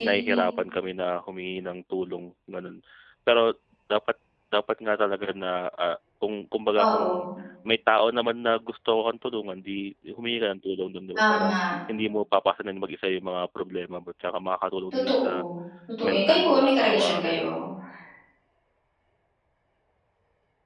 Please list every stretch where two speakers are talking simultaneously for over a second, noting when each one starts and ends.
16.0-17.4

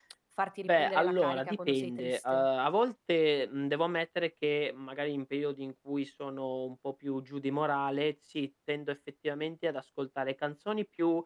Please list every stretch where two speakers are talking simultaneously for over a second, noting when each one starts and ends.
0.6-2.5

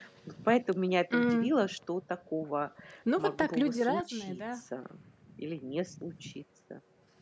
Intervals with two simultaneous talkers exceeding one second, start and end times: 3.2-4.4

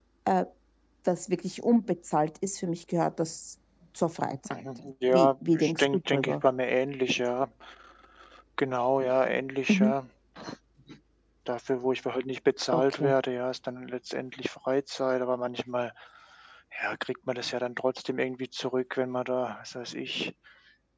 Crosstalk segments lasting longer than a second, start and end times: 5.1-6.3

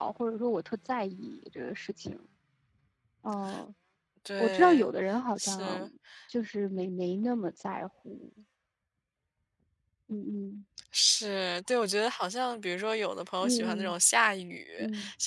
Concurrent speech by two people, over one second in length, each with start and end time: none

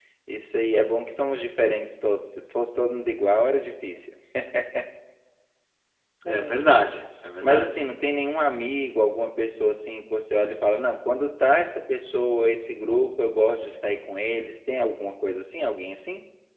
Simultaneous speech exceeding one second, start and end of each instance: none

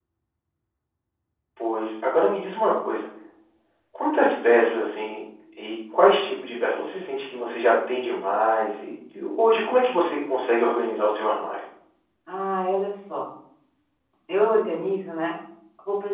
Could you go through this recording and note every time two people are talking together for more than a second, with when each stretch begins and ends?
none

